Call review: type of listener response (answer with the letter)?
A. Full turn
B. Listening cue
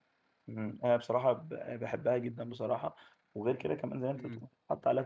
B